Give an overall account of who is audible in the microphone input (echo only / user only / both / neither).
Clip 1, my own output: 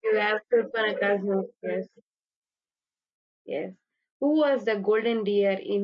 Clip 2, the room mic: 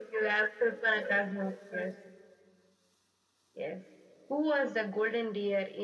echo only